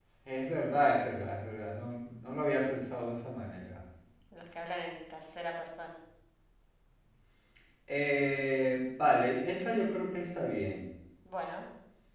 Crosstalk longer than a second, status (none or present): none